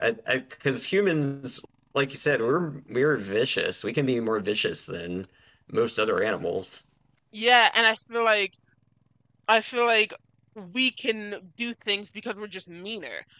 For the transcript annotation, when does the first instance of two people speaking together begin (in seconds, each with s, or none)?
none